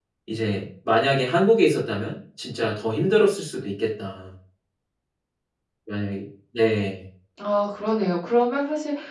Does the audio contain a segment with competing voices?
No

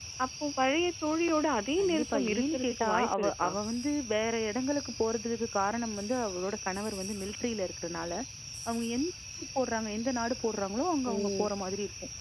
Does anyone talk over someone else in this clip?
Yes, from 1.8 s

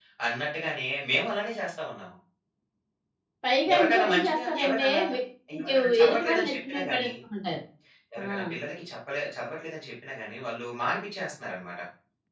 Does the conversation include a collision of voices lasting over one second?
Yes, from 3.7 s

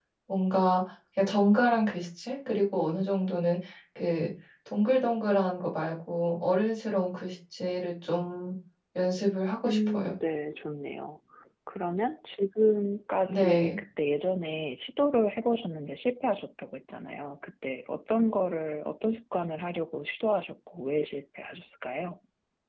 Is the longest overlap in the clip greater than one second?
No

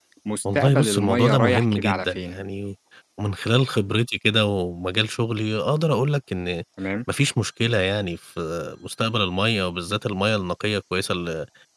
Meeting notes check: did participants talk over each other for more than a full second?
Yes, from 0.6 s

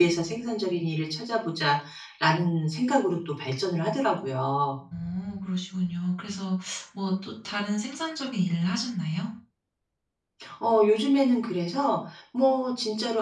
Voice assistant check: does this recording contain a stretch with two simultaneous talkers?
No

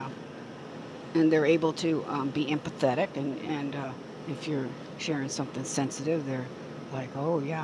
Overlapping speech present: No

